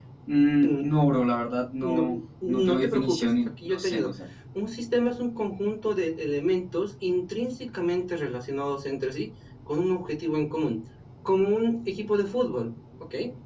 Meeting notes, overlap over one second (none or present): present